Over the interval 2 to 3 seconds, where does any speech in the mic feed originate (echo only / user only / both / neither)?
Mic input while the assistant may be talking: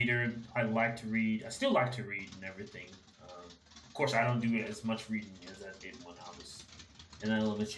user only